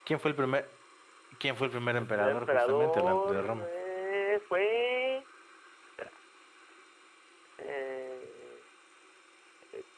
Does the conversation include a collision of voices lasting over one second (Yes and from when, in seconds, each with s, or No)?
Yes, from 2.2 s